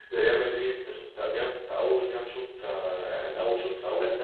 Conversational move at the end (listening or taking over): taking over